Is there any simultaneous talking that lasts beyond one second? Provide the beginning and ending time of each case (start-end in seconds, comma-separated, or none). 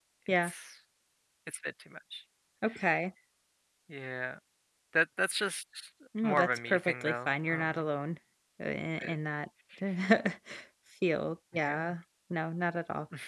6.2-7.7